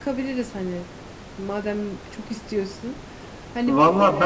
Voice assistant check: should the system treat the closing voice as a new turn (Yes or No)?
Yes